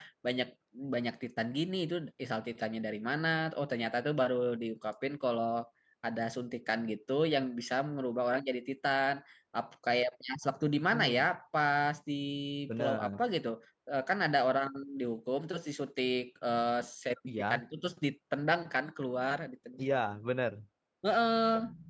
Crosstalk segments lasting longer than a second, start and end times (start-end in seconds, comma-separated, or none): none